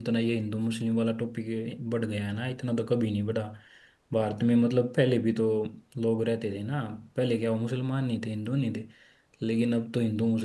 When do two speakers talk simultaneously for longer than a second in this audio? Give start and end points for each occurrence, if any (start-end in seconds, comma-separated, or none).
none